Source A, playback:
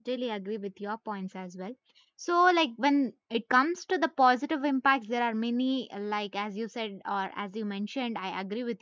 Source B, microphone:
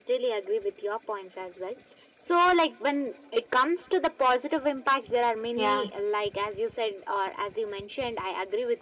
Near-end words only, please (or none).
yeah